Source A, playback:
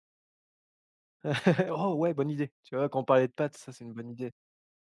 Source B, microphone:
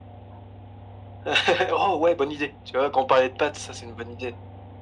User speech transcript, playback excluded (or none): none